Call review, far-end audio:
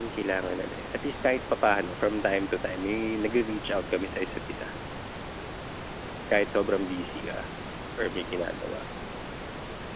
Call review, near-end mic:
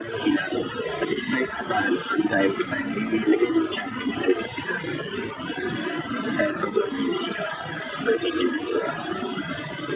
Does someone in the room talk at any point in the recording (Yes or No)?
No